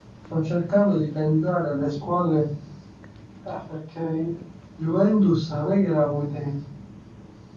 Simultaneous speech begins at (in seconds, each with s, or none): none